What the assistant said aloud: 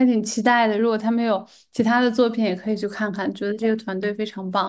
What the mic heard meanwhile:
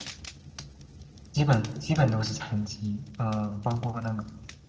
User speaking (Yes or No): Yes